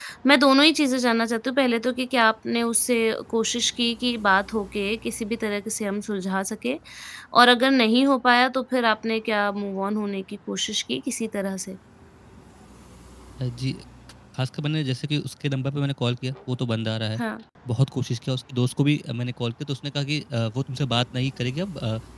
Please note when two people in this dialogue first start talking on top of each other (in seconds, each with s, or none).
none